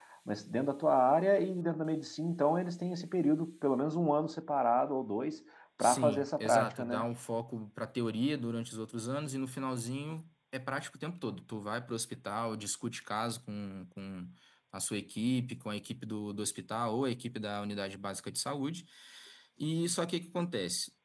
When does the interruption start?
5.8 s

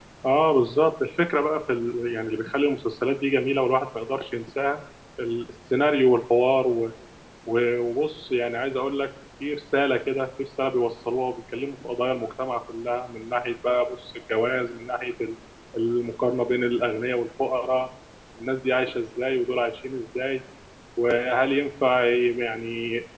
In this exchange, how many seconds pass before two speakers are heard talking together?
none

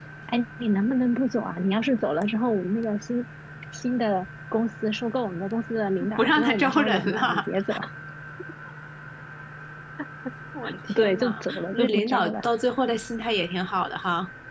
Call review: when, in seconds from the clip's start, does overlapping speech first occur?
6.2 s

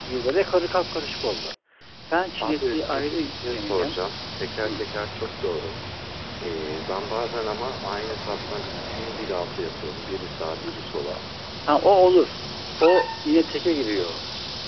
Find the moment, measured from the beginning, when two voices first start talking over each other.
2.4 s

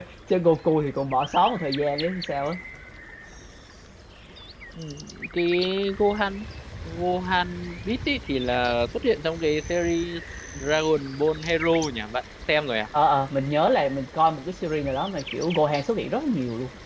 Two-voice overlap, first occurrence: none

